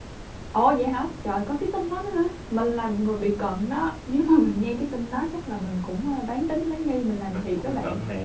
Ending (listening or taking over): taking over